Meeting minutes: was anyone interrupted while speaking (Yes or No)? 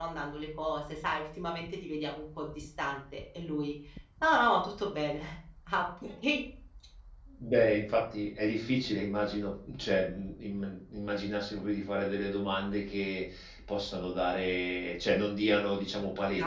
No